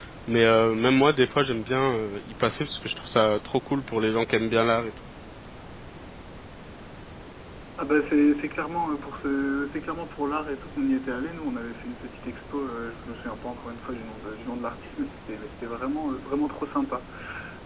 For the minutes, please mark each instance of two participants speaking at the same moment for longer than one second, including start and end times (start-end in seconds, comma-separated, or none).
none